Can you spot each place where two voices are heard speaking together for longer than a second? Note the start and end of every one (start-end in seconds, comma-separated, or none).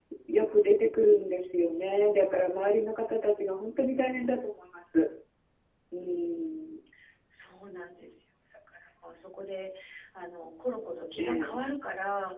none